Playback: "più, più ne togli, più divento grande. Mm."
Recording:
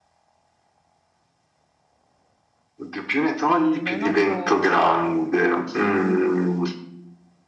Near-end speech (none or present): present